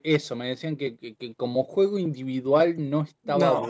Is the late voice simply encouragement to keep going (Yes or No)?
Yes